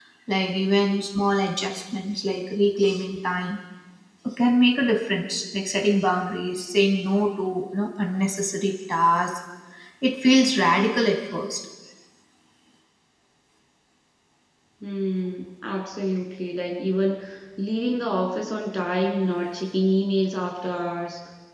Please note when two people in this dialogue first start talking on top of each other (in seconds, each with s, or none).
none